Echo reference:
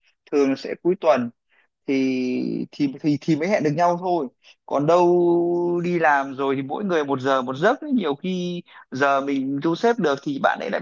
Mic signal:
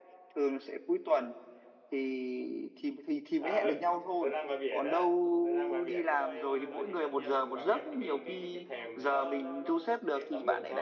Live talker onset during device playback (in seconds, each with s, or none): 3.3 s